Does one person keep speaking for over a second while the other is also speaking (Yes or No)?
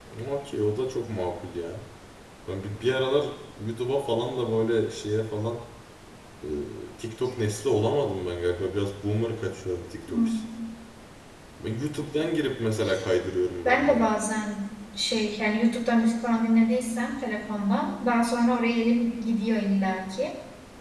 No